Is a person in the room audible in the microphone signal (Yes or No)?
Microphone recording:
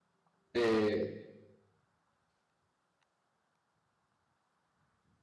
Yes